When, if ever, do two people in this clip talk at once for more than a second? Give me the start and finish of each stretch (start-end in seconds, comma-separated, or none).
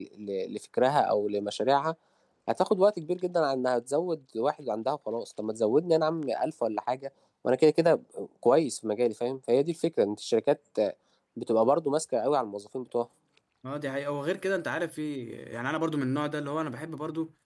none